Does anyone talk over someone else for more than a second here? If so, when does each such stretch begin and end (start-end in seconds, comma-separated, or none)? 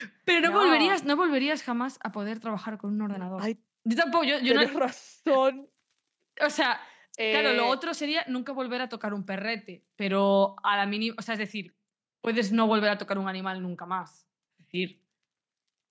none